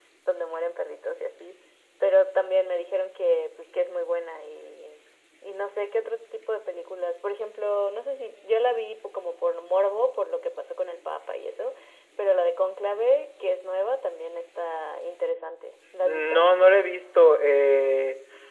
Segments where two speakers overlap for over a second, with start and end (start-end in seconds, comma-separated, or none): none